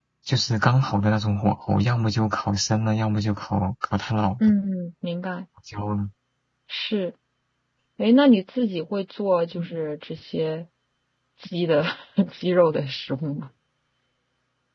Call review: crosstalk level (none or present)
none